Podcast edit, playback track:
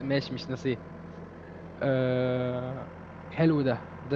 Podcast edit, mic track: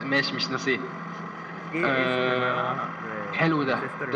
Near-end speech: present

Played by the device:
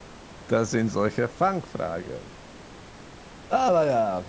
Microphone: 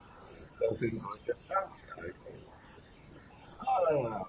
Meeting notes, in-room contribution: none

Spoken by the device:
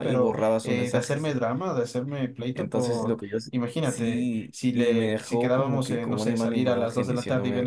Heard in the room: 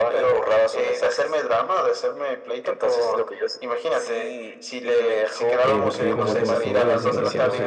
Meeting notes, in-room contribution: present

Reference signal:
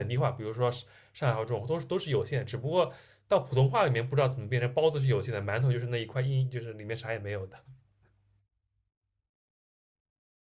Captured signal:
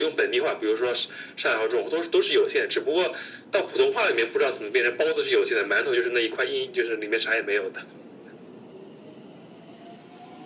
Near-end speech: none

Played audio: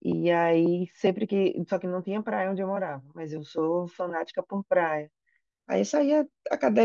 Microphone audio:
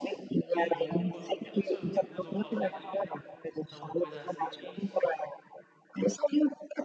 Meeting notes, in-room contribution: present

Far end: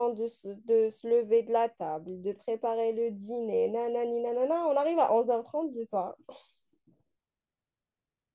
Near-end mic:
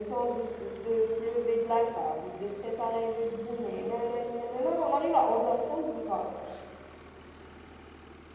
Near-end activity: none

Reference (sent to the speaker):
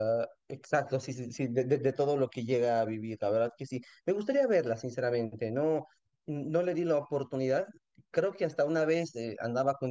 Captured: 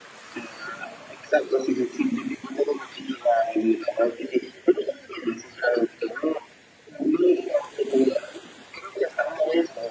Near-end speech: none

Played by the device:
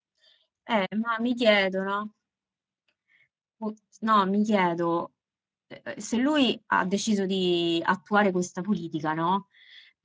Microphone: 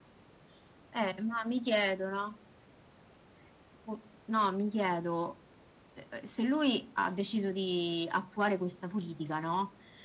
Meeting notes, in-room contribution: none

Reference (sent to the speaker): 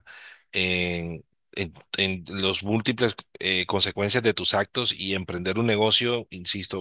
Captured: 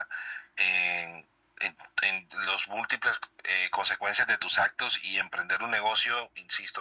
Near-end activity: none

